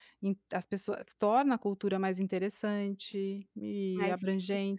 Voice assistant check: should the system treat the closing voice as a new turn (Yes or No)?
No